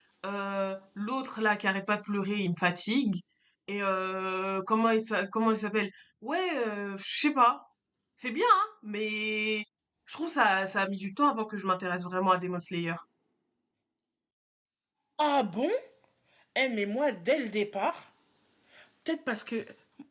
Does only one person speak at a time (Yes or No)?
Yes